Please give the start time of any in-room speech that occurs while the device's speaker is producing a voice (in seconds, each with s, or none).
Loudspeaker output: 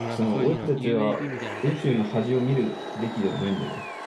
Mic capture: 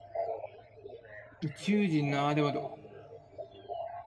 1.4 s